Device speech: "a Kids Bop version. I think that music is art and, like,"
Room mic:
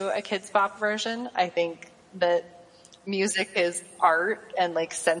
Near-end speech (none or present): none